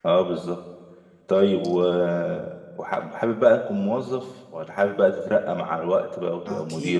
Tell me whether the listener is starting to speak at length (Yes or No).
Yes